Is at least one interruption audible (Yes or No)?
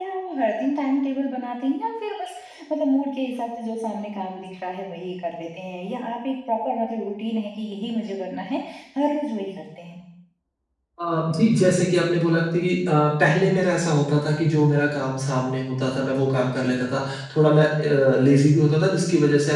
No